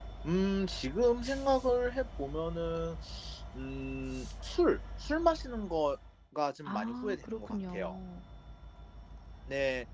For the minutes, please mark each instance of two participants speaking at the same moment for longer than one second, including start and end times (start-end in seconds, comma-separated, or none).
6.7-8.0